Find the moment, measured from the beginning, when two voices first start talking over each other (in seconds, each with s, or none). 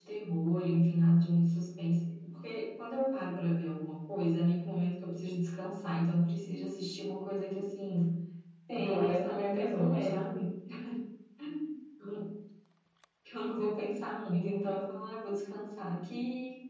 8.7 s